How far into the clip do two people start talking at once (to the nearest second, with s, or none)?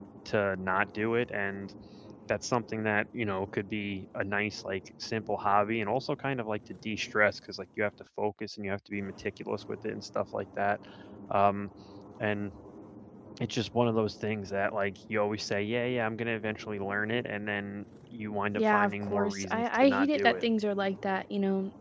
19 s